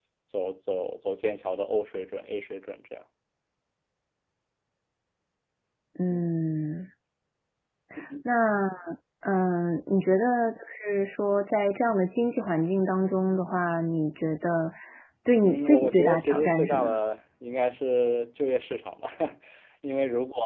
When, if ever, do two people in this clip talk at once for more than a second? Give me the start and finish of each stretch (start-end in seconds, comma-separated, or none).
15.4-16.9